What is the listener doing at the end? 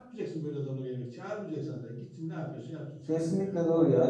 taking over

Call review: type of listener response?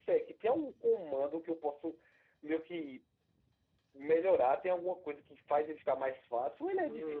taking over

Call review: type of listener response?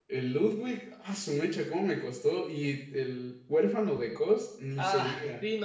taking over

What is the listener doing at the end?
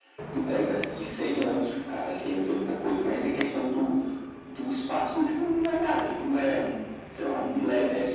taking over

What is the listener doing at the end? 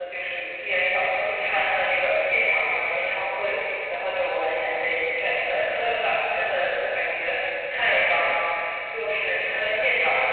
listening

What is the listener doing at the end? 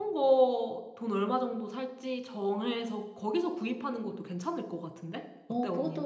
taking over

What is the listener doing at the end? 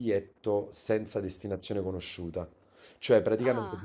listening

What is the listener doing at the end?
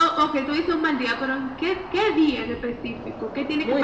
taking over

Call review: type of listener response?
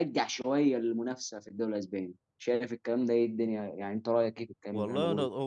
taking over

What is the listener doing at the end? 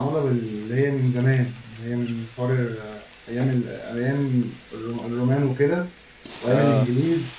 listening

